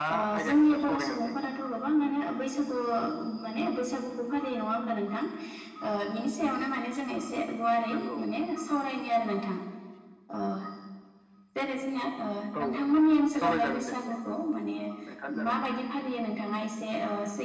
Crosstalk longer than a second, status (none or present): present